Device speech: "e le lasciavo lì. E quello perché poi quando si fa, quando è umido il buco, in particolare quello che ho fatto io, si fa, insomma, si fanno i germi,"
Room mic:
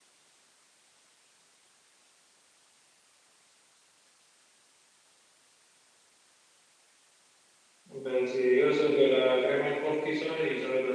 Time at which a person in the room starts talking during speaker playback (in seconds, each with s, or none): 7.9 s